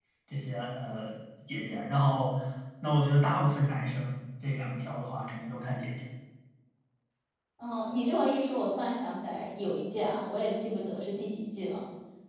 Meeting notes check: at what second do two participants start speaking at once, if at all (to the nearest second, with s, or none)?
none